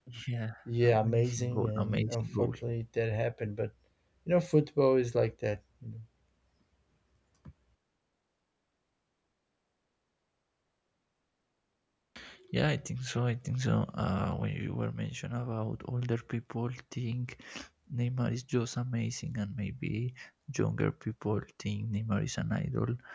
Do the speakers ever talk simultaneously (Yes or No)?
Yes